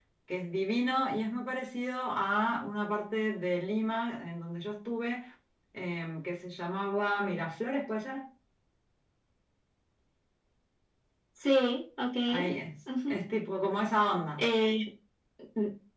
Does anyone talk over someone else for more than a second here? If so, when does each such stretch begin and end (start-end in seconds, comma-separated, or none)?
none